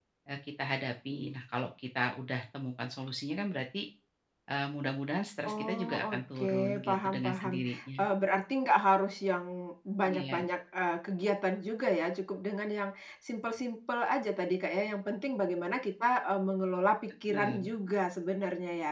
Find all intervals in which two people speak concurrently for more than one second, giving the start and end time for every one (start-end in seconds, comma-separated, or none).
5.5-8.0